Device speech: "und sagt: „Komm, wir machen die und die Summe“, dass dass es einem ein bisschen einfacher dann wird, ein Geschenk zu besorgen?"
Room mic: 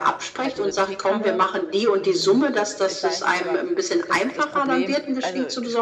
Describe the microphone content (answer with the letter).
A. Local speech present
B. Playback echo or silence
A